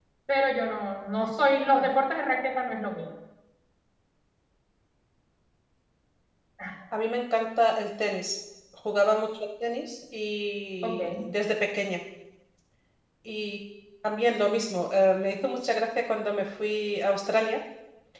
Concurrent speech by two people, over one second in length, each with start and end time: none

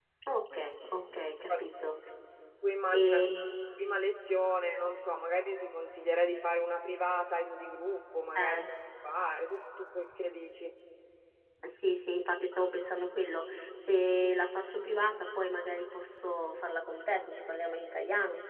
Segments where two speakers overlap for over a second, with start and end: none

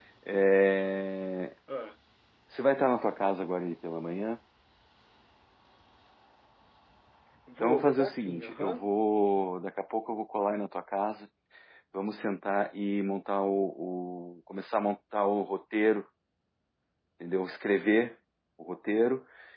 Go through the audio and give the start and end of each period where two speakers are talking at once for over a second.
7.6-8.9

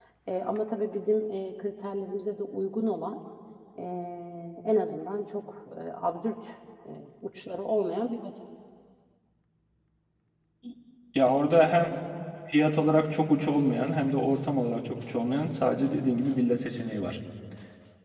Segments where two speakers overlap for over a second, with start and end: none

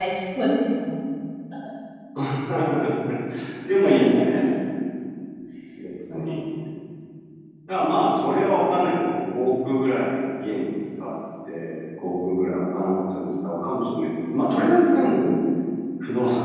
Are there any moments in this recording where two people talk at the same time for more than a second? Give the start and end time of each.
none

